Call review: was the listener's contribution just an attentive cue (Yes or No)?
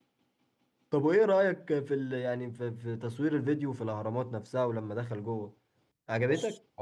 No